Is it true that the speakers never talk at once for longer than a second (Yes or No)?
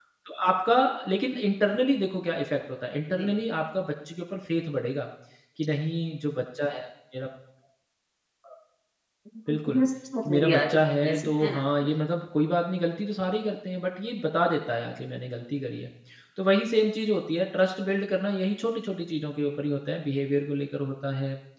No